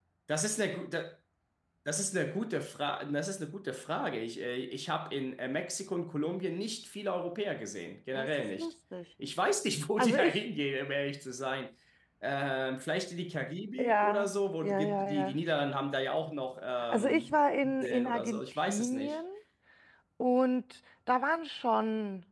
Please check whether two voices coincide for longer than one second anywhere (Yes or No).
Yes